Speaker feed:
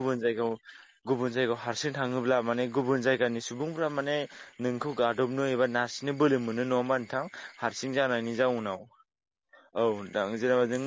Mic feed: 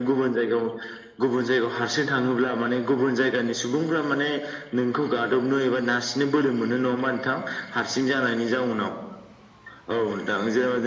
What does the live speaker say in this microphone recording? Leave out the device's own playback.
none

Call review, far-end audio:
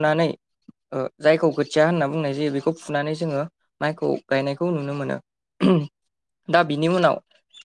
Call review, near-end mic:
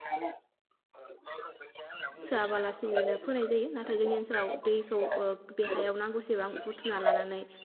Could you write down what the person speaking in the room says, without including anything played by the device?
सोआबालासिनोबो फोनाय जायो नाथाय जोंनि ओनसोलाव दैखौ ओ बे हायाव नांगौसेबां बुथुमना लानानै

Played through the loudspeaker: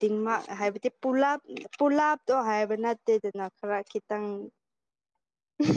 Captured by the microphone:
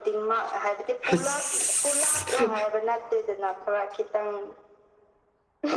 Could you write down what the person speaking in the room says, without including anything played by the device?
ꯍꯤꯁ

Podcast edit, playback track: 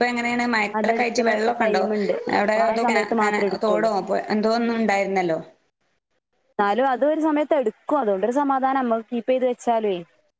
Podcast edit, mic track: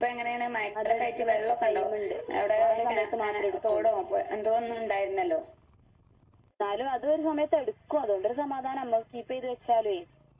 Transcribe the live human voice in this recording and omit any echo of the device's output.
none

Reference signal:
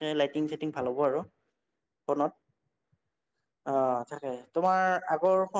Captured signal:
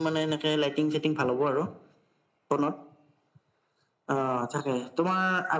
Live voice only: none

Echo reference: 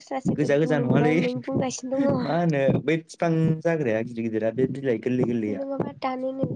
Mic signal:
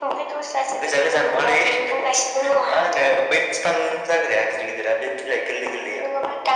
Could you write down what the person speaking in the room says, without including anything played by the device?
none

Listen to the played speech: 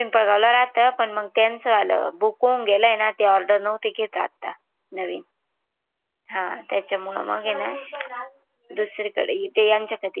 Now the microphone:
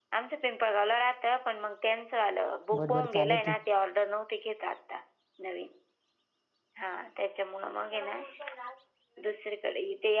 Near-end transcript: गडबड चालती.

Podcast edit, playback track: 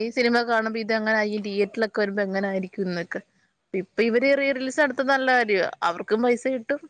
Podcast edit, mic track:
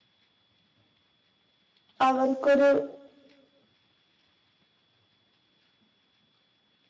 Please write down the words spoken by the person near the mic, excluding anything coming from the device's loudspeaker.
അവർക്കൊരു

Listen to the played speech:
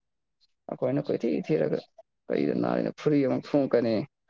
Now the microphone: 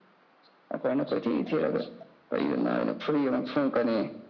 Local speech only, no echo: none

